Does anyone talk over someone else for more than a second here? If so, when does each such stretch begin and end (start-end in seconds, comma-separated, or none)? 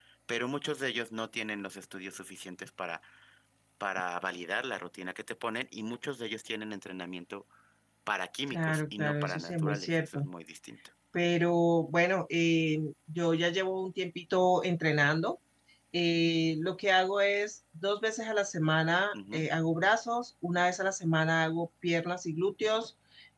8.5-10.2